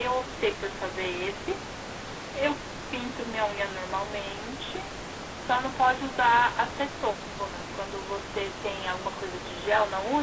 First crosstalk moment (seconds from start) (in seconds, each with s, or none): none